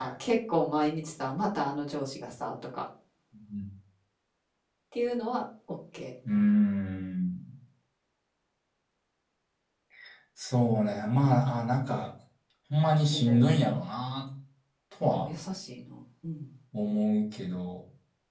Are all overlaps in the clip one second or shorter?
Yes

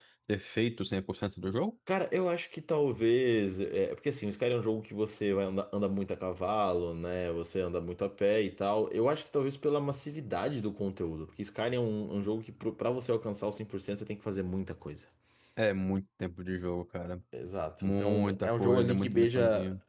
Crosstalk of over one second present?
Yes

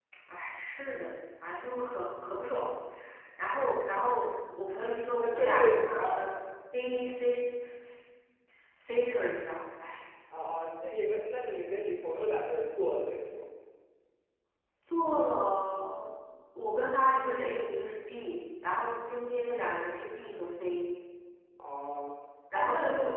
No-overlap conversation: No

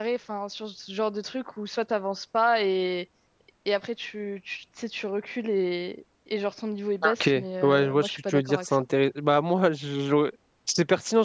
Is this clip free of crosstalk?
No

